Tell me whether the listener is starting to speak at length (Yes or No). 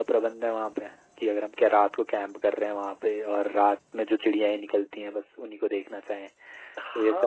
Yes